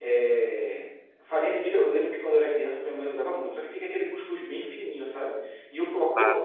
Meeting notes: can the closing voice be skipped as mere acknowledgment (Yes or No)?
Yes